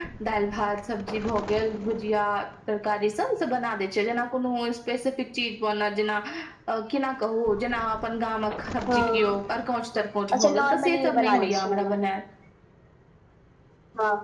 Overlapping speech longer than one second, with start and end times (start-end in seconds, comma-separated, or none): 10.3-11.9